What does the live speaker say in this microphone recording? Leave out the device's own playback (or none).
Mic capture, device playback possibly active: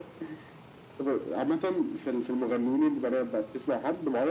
none